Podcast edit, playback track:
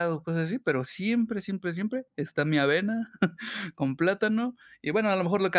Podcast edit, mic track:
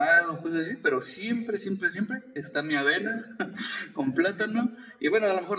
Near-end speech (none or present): none